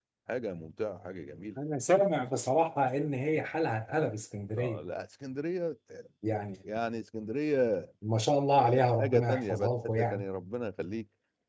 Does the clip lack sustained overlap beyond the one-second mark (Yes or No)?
No